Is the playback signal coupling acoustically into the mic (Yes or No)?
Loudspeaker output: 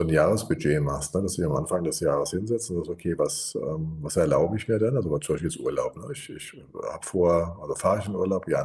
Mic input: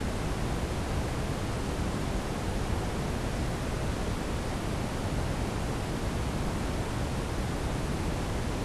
No